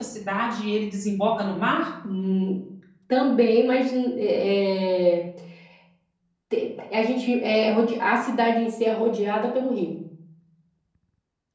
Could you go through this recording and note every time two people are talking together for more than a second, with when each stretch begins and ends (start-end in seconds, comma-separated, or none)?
none